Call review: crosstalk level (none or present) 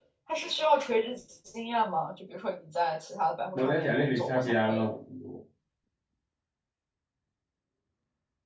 present